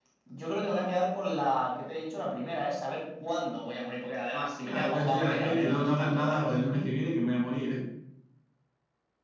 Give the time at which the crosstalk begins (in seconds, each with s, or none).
4.6 s